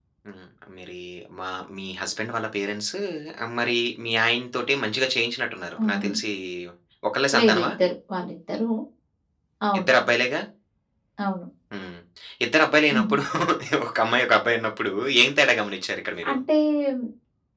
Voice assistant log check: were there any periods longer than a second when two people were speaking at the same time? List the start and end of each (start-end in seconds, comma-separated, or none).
none